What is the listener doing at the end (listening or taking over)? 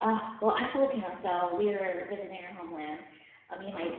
listening